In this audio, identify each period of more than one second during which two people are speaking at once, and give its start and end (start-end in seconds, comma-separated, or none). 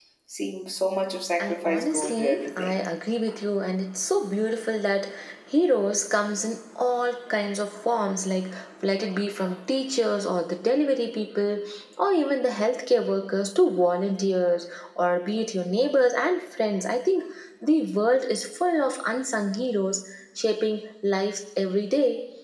1.4-2.7